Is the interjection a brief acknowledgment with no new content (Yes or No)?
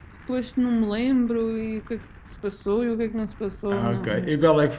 No